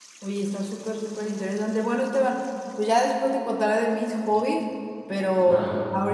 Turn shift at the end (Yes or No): No